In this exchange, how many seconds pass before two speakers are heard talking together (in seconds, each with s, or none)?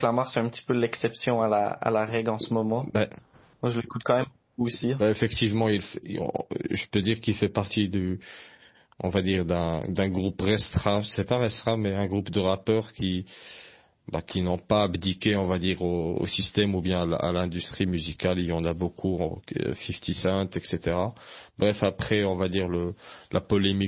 none